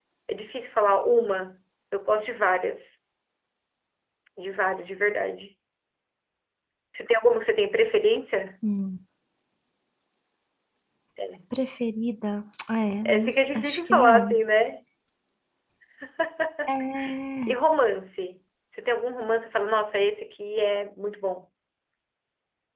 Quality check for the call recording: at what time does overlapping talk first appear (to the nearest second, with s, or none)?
13 s